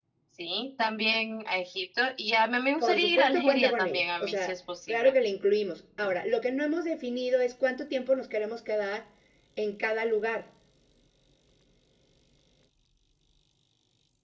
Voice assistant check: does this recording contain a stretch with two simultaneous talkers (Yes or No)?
Yes